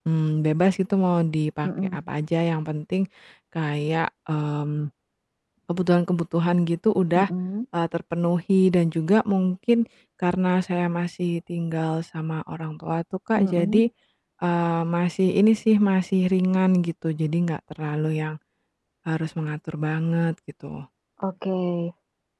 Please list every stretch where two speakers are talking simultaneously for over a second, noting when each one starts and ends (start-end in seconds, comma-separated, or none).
none